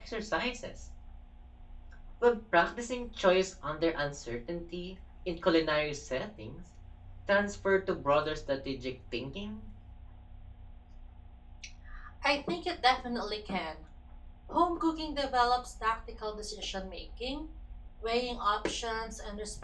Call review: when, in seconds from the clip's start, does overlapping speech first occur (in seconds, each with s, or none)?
none